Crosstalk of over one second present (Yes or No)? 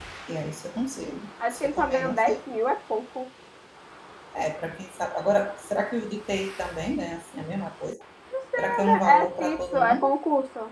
Yes